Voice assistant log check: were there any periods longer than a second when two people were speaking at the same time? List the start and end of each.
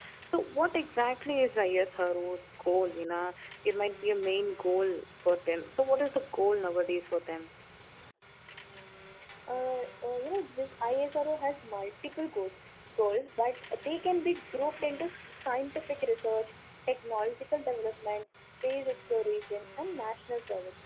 none

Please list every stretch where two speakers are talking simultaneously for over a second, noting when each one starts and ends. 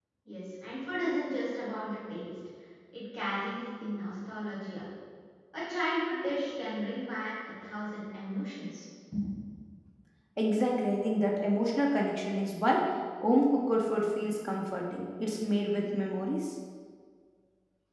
none

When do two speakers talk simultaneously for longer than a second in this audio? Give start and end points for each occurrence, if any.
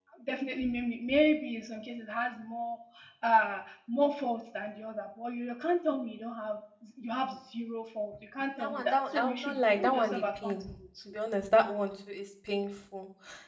8.6-10.6

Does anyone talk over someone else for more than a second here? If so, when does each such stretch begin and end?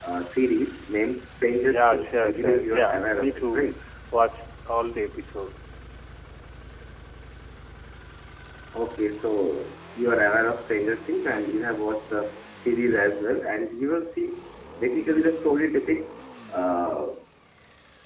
1.7-3.7

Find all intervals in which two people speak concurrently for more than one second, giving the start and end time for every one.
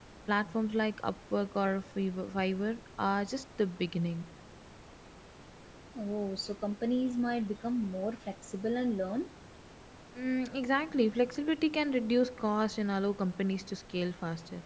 none

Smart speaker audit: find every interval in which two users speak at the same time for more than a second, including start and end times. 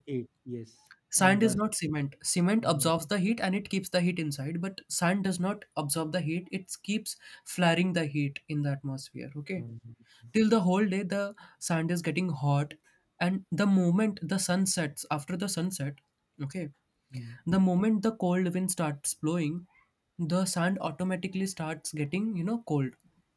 none

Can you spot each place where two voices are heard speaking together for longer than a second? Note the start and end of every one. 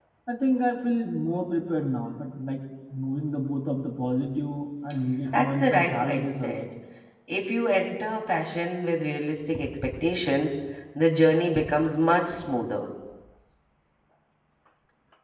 5.3-6.7

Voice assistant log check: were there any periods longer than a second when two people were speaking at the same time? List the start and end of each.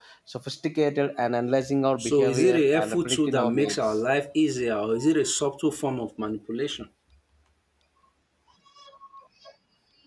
2.0-3.8

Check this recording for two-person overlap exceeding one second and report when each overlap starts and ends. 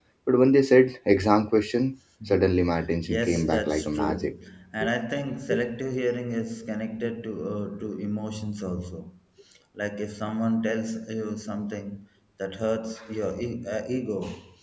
3.1-4.3

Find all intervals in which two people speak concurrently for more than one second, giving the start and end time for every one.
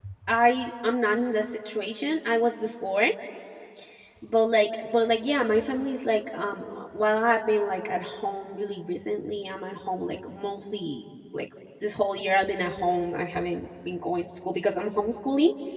none

